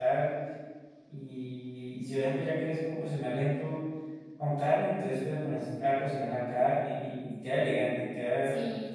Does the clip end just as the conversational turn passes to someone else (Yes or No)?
Yes